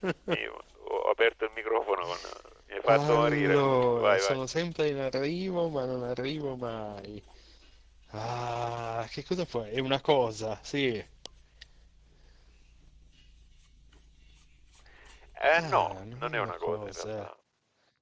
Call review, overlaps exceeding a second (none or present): present